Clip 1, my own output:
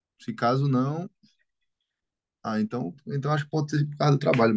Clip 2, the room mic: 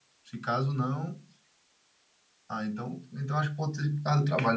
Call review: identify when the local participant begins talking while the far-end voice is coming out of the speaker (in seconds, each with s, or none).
none